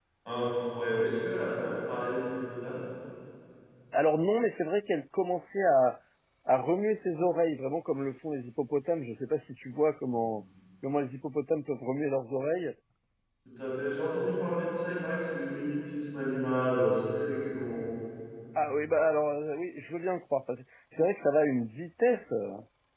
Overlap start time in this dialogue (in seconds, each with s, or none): none